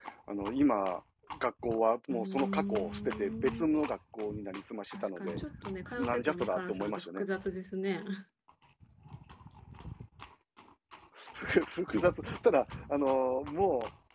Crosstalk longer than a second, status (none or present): present